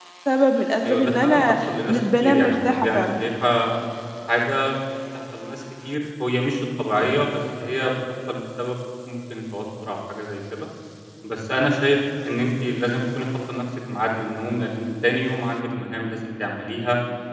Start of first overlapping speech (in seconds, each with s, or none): 0.8 s